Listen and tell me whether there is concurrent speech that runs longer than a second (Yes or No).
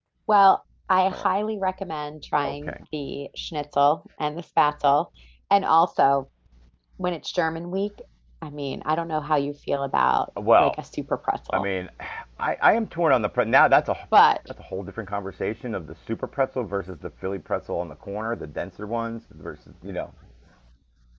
No